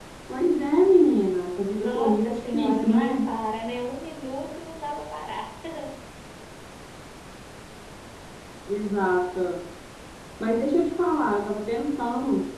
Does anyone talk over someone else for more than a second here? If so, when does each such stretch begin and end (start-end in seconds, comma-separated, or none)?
1.8-3.2